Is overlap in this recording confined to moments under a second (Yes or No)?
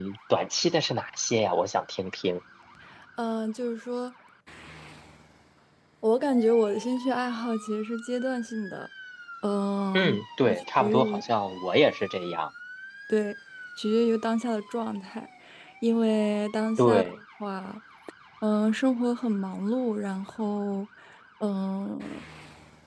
No